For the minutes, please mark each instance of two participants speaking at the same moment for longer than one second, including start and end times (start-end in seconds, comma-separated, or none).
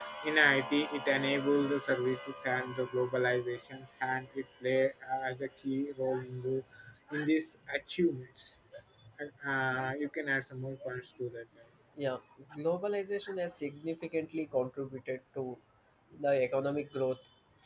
none